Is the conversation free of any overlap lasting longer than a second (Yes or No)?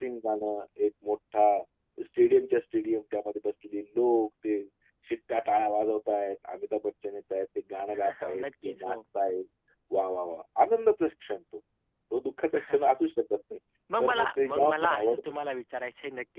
No